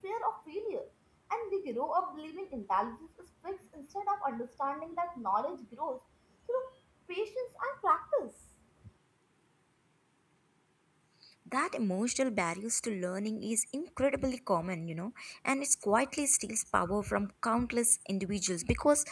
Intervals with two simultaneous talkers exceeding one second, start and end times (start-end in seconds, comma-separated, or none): none